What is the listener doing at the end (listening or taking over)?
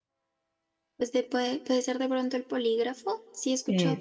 listening